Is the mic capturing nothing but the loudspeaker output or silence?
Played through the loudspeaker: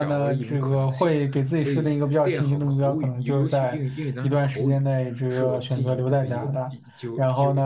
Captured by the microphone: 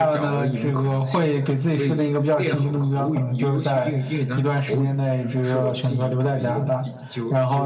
Yes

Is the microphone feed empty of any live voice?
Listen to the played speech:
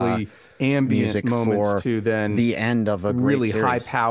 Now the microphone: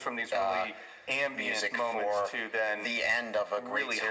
Yes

